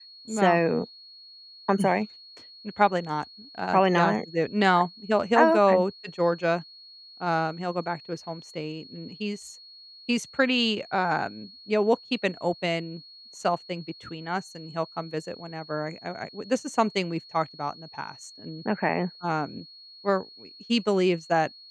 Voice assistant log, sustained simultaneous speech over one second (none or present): none